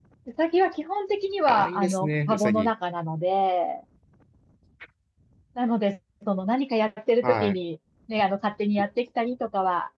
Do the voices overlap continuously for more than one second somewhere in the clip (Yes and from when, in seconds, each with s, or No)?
Yes, from 1.5 s